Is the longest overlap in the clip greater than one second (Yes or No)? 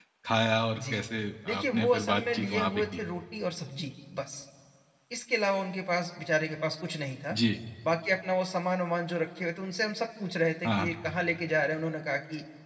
Yes